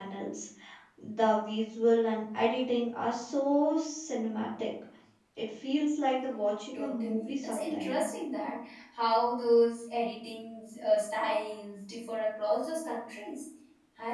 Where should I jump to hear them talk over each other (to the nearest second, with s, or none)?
7 s